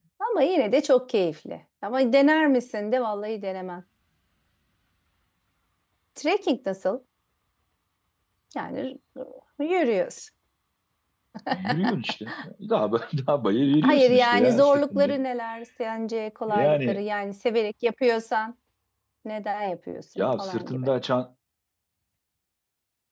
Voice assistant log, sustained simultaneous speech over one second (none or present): present